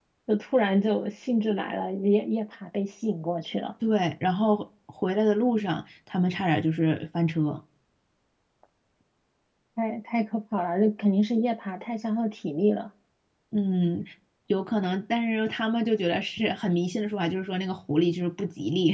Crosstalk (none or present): none